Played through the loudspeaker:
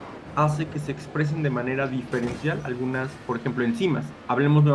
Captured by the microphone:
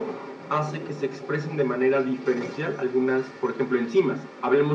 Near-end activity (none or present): none